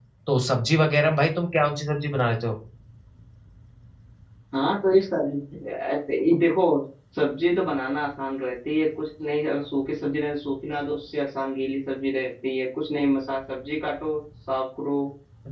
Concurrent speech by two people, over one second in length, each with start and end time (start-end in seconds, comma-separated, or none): none